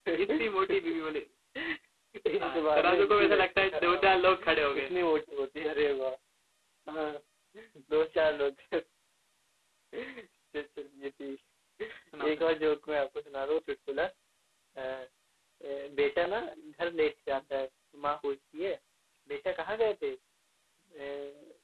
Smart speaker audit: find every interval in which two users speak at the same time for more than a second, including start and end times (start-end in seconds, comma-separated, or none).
2.4-4.1